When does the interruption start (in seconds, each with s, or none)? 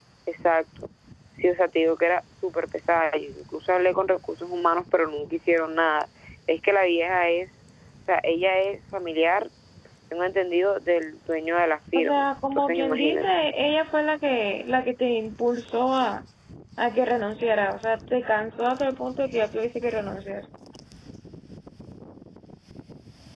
11.9 s